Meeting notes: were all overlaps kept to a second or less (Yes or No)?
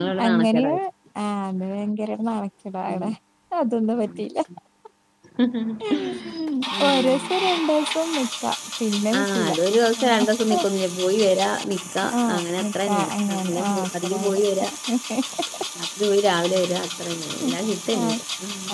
No